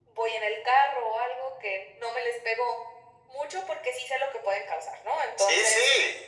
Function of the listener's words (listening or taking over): taking over